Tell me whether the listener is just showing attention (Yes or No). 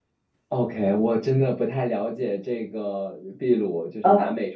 Yes